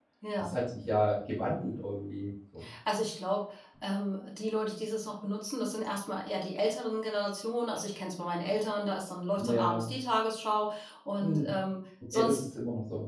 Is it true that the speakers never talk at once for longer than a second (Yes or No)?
Yes